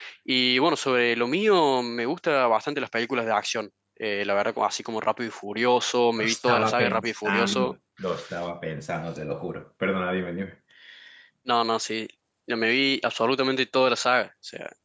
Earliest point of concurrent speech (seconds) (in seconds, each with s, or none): 6.2 s